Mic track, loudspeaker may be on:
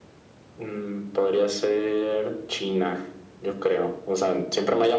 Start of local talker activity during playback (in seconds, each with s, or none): none